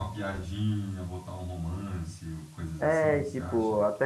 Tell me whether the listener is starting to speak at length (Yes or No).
Yes